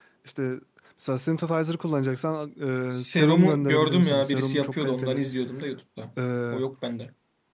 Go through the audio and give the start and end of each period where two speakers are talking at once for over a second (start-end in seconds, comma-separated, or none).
3.0-5.2